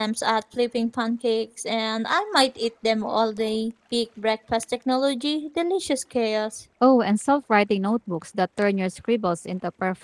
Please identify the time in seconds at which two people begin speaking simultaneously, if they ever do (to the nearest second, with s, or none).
none